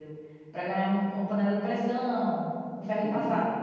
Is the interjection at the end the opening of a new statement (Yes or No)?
Yes